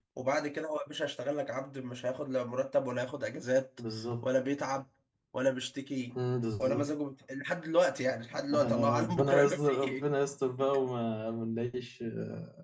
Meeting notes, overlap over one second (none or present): present